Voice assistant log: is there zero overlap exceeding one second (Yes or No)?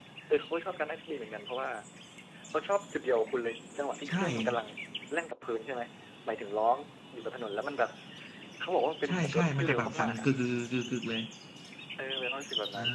No